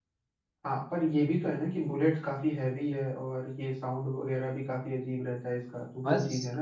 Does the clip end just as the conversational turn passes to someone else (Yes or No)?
Yes